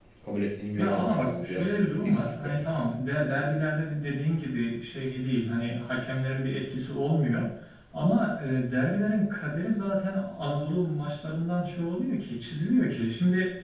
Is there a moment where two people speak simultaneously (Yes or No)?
Yes